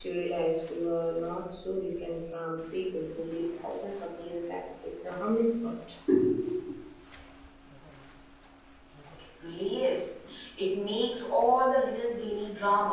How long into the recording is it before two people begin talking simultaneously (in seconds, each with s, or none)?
none